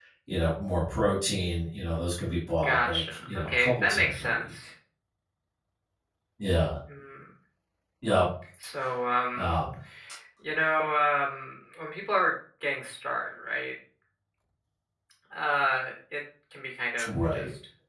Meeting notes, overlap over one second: present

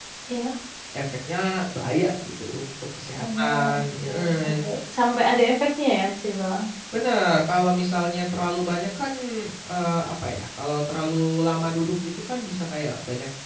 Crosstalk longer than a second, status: present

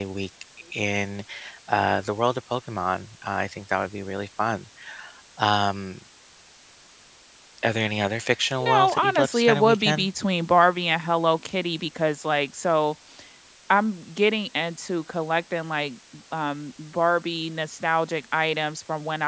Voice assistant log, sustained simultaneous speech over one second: present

